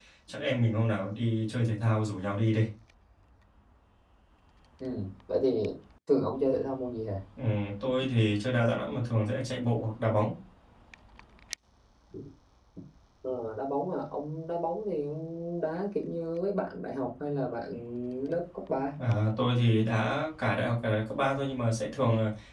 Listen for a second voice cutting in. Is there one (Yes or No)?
No